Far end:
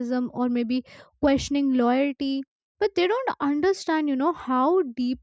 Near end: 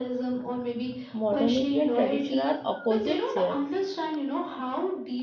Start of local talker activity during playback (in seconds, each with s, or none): 1.1 s